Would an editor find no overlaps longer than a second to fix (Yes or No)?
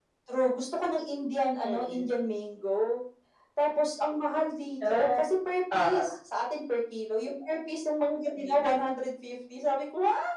Yes